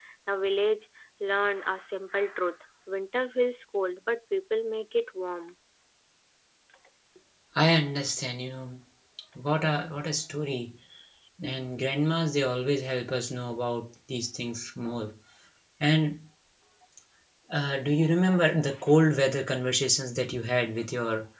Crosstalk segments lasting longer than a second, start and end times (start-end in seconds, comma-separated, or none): none